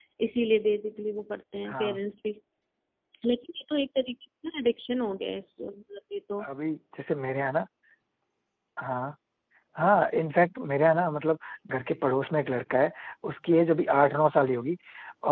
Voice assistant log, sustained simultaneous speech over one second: none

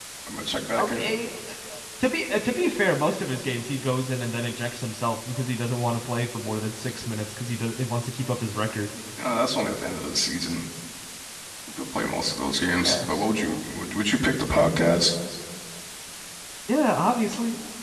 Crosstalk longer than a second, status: none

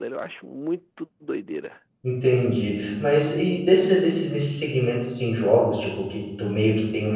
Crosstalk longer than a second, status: none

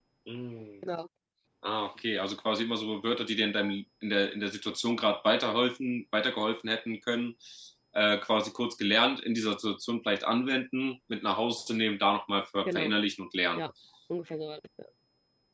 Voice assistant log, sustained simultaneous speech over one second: none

